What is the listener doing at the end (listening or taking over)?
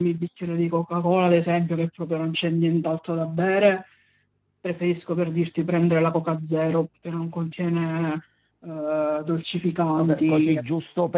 taking over